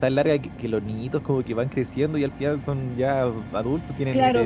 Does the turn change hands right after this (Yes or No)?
Yes